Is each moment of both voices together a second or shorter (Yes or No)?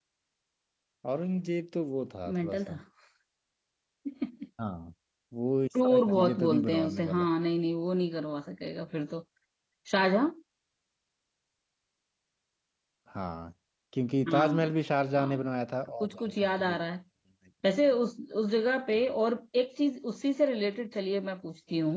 No